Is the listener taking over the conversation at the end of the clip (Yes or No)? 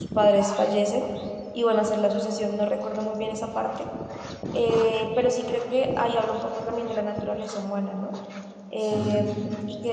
No